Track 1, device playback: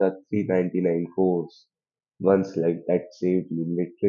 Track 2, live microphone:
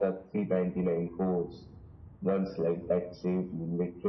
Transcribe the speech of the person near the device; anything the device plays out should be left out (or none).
none